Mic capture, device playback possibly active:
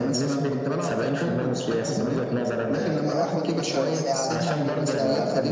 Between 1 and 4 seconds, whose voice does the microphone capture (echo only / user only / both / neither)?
both